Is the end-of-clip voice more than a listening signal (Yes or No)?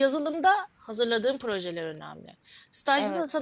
No